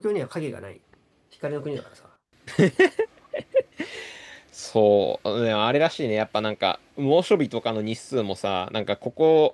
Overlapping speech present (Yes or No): No